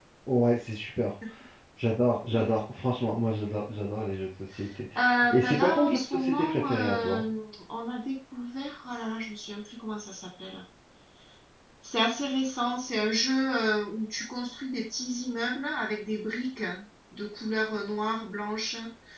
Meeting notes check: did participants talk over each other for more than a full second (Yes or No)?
Yes